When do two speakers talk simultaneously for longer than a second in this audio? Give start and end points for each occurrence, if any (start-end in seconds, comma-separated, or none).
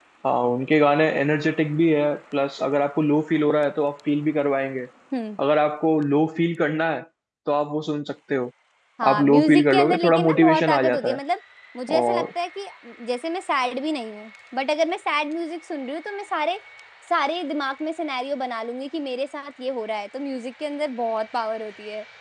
9.1-11.2